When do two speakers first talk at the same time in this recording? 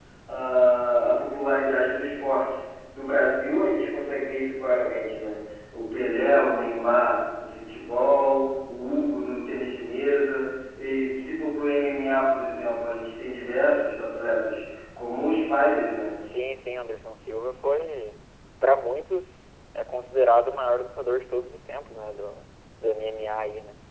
none

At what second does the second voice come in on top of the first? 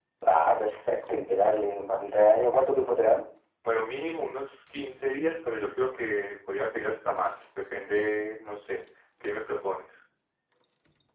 none

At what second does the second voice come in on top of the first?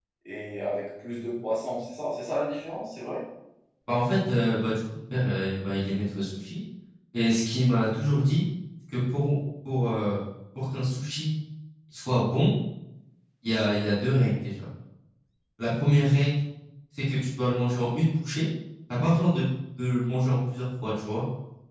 none

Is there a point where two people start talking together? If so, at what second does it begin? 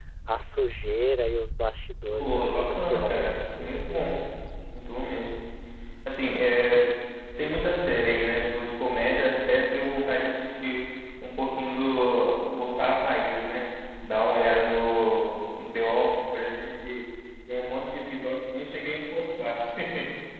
2.1 s

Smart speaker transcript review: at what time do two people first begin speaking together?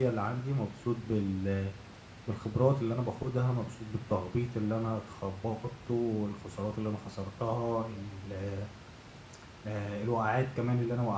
none

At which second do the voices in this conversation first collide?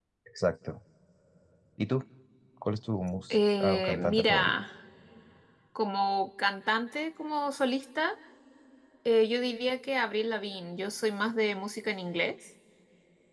3.3 s

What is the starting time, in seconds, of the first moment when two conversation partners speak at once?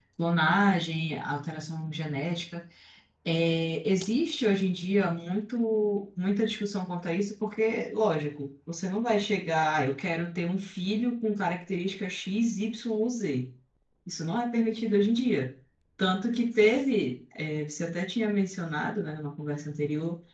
none

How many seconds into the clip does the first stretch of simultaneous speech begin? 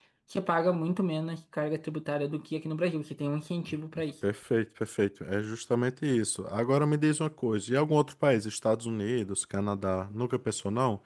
none

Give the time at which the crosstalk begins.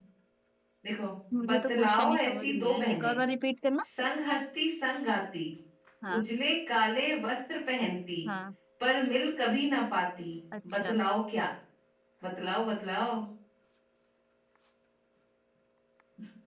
1.5 s

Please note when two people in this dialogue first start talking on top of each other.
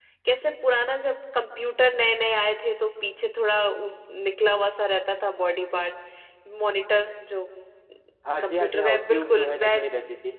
8.4 s

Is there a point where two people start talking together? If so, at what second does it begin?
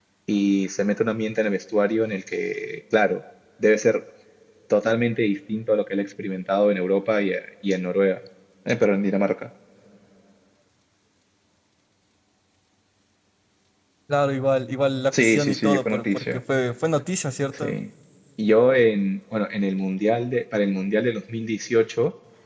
15.1 s

